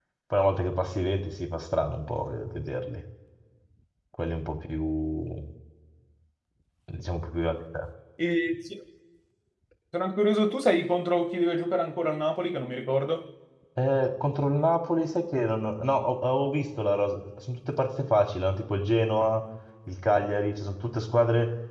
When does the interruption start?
none

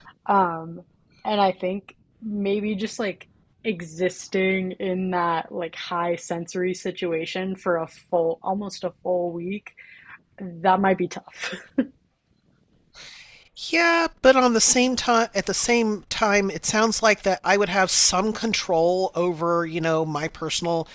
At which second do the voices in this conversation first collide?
none

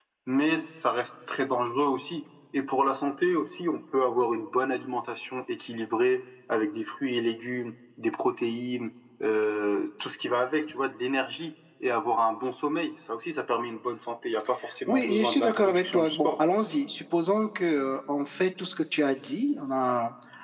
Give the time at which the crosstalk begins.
14.9 s

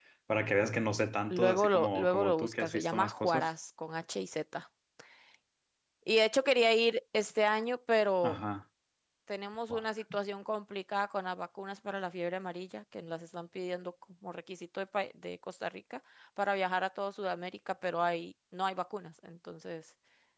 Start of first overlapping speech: 1.3 s

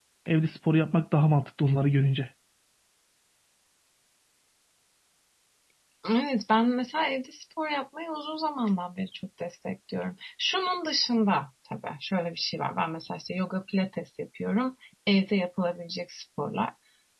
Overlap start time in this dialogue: none

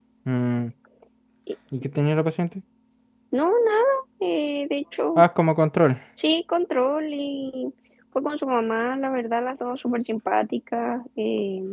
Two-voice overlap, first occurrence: none

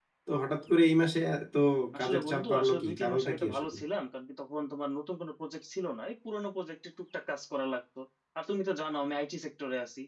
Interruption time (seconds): 2.0 s

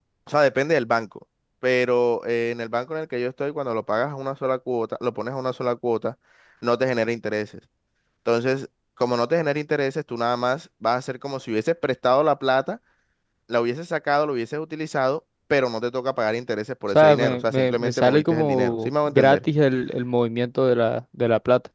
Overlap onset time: 16.9 s

